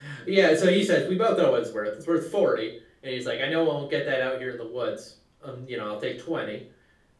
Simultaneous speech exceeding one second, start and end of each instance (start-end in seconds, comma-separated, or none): none